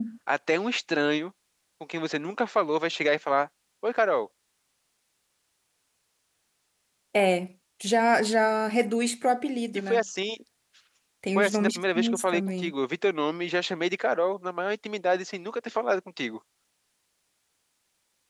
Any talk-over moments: Yes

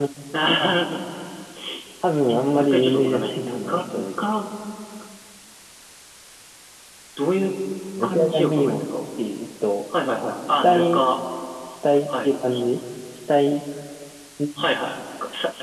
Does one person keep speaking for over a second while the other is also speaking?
Yes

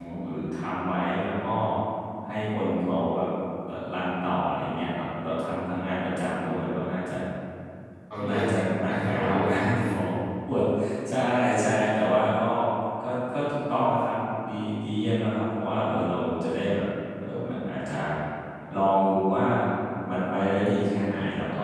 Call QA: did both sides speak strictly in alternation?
No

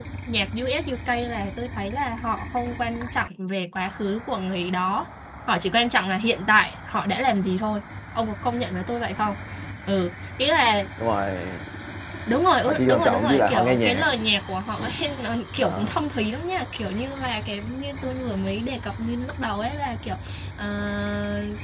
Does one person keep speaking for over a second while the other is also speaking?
Yes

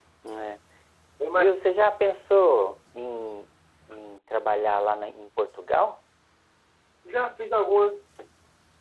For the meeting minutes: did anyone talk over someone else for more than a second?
No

